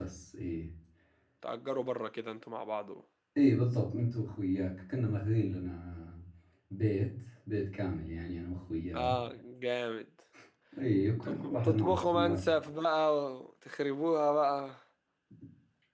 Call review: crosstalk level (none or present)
present